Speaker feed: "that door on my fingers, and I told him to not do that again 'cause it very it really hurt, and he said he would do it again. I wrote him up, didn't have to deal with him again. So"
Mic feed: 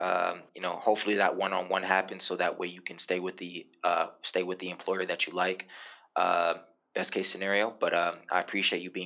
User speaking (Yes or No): Yes